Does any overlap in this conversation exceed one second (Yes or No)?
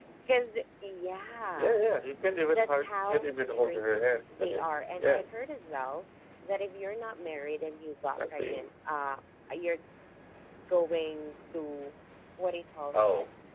Yes